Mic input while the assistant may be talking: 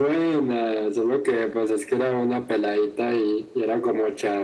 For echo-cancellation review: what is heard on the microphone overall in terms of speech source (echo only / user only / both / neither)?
echo only